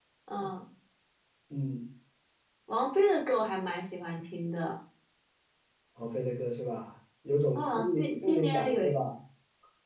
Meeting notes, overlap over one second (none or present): present